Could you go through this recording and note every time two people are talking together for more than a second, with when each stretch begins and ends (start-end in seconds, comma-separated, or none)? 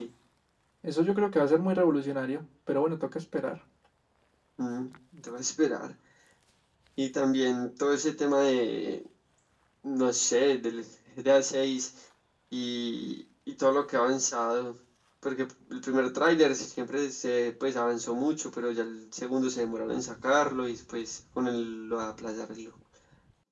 none